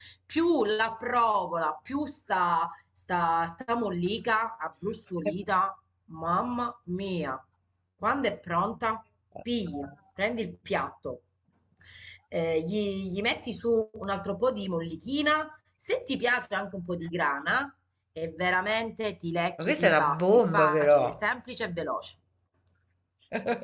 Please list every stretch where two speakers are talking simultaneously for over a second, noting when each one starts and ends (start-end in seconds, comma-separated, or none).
19.6-21.1